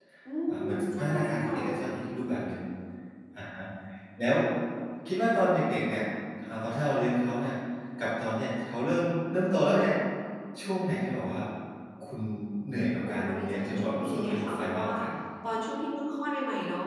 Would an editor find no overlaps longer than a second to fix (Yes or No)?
No